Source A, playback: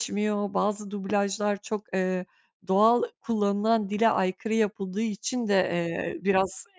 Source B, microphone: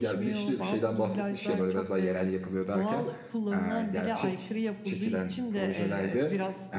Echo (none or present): present